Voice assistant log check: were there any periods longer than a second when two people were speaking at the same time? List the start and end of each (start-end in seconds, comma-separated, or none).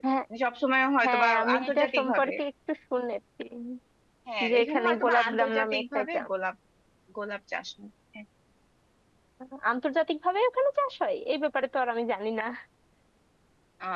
1.0-2.3, 4.5-6.3